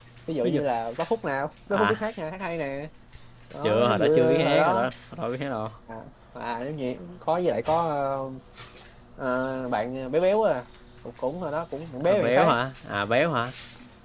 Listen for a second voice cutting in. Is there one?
Yes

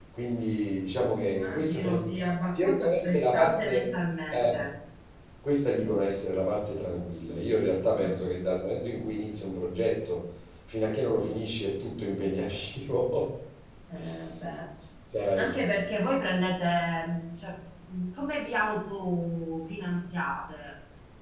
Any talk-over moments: Yes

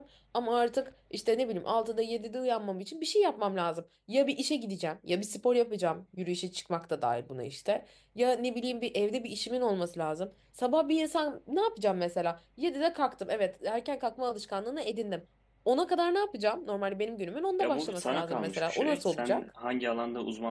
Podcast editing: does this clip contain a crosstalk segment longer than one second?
Yes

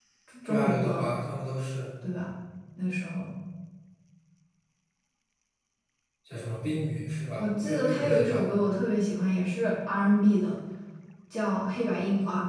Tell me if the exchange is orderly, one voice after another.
No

